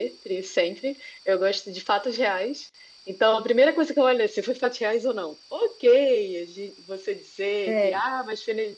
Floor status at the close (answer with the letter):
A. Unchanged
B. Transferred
A